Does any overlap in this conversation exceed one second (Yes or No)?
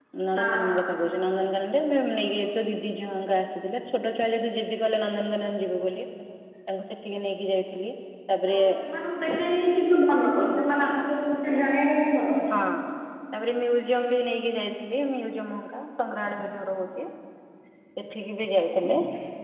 No